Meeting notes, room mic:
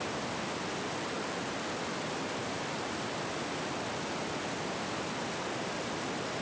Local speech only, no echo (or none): none